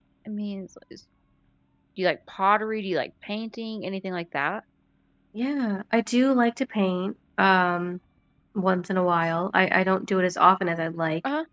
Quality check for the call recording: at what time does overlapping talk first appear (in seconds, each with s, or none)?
none